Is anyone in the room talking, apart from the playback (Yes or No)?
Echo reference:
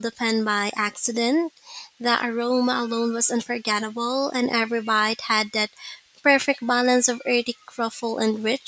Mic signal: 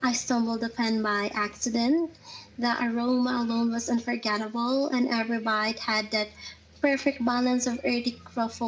No